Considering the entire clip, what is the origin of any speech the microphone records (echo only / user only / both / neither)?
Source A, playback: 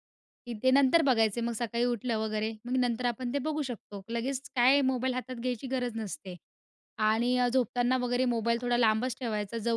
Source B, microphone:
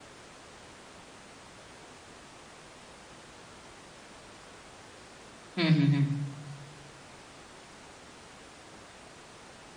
user only